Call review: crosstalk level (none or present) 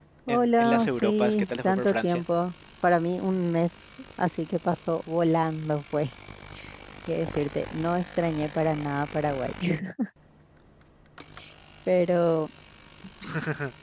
present